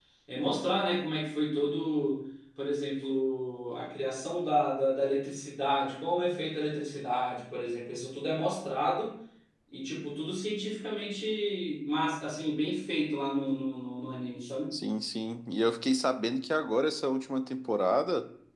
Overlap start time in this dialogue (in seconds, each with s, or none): none